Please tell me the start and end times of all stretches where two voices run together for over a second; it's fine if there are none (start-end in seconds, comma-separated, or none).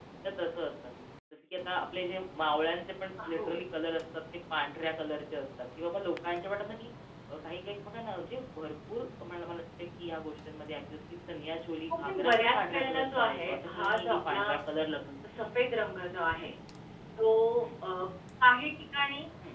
11.9-14.5